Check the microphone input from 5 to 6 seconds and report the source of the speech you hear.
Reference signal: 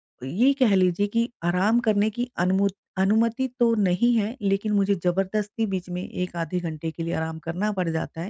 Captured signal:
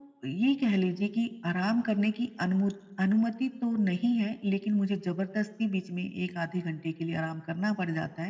echo only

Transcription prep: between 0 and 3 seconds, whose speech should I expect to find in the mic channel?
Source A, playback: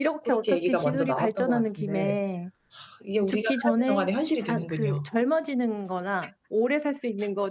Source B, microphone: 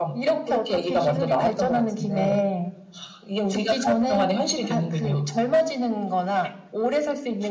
echo only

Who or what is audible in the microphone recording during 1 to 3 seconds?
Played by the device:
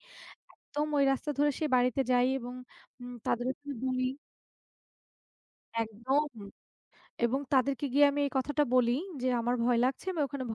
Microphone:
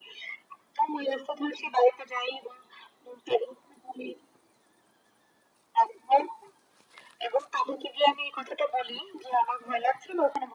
echo only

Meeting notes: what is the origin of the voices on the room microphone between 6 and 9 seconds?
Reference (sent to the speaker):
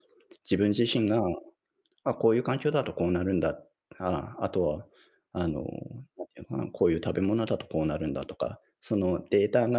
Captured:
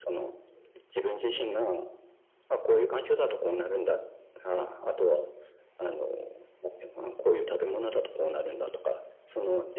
echo only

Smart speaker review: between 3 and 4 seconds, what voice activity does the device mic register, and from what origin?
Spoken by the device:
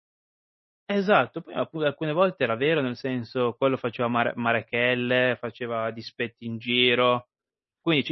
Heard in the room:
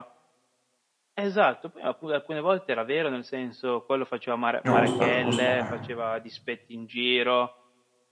echo only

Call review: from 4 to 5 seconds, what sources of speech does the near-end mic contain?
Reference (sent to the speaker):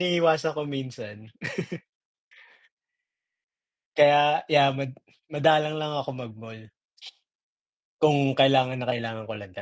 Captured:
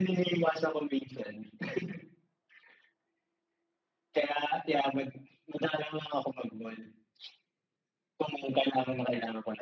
echo only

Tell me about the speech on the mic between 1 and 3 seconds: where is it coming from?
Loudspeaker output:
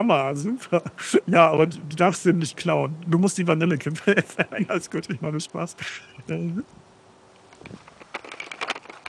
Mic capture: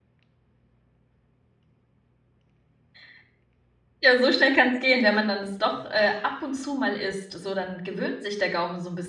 neither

